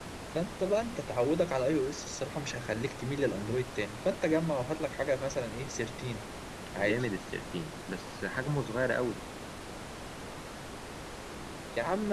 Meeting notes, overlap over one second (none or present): none